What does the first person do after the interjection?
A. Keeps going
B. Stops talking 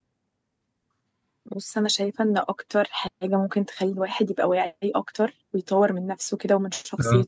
A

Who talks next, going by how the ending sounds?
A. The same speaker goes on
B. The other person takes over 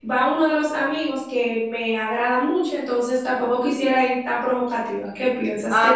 B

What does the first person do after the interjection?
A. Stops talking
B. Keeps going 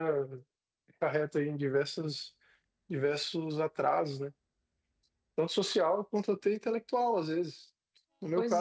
B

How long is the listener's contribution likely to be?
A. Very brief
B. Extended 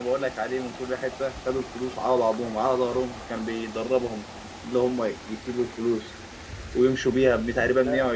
A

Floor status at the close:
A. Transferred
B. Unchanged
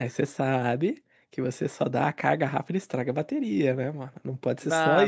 A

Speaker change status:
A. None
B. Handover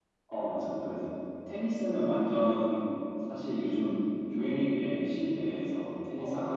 A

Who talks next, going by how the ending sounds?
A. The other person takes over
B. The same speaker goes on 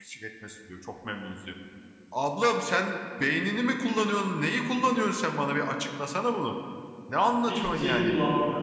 A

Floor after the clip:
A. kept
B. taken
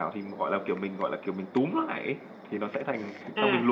B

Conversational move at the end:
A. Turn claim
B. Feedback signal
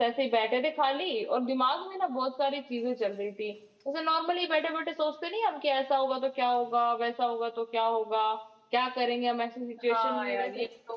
A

